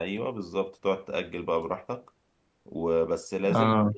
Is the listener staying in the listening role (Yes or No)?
Yes